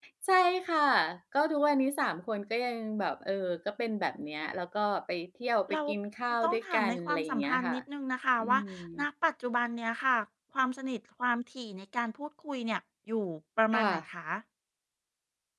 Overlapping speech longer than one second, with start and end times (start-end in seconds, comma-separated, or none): 6.4-7.8